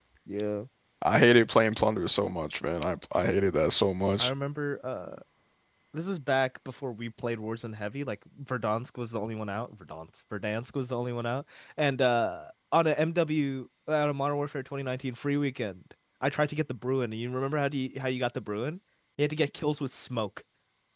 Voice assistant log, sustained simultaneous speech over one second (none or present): none